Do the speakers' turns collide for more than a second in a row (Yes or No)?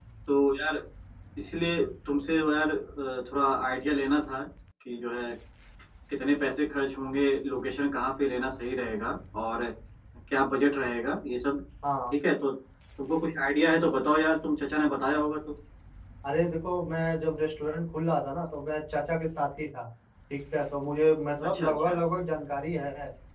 No